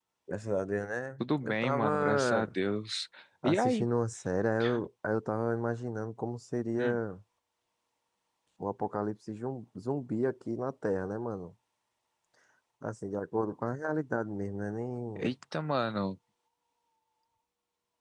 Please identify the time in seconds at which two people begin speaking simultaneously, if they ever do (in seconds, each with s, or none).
1.2 s